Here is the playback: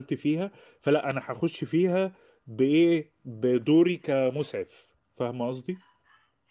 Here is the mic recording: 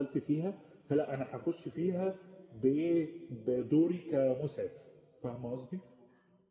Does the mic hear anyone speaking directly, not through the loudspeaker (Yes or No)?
No